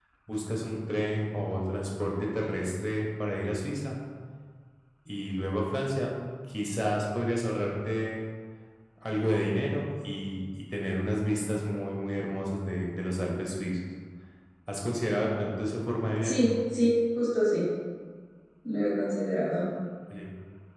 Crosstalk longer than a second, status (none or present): none